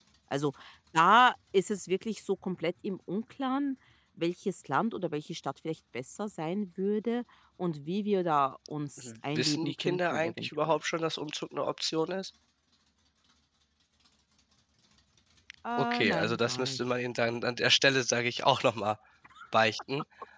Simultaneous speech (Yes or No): Yes